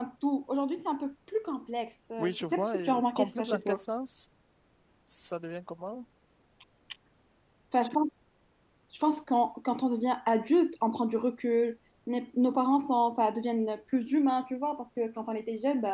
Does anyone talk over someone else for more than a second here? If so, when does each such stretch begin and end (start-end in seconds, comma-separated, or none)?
2.2-3.8